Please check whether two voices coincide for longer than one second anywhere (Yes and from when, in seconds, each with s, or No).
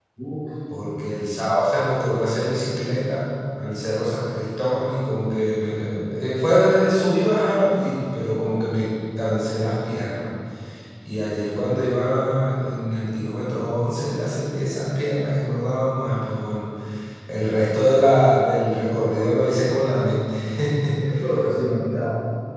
No